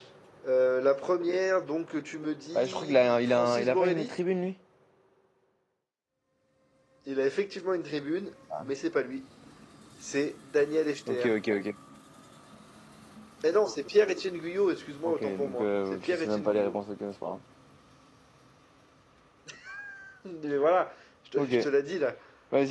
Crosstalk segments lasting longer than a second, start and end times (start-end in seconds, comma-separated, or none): 2.6-4.1, 15.0-16.8